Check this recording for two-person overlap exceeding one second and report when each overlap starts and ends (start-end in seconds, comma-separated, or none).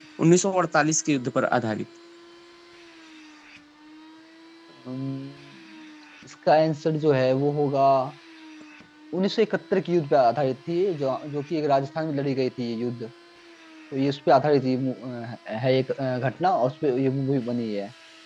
none